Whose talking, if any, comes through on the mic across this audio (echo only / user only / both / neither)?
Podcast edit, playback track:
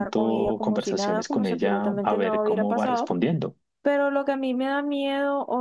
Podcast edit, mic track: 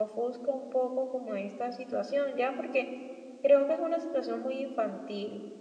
user only